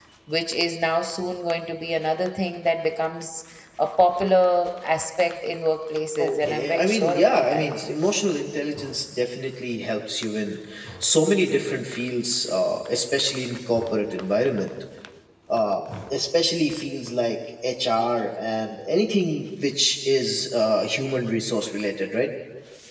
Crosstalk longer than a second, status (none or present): present